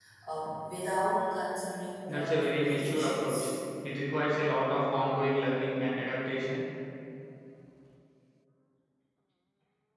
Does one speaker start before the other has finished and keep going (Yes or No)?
Yes